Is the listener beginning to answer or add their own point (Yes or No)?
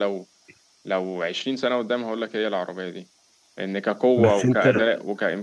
No